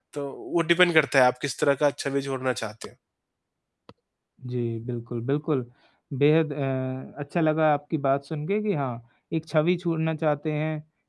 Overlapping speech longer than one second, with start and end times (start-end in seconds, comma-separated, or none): none